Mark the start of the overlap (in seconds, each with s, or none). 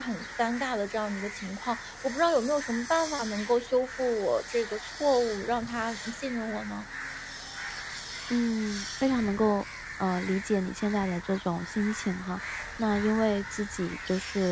none